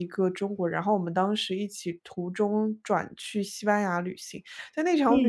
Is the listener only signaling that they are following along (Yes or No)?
Yes